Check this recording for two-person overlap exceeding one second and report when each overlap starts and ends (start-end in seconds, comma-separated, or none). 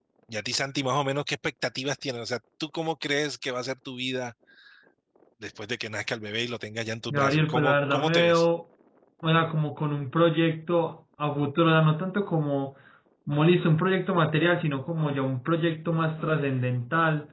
7.1-8.4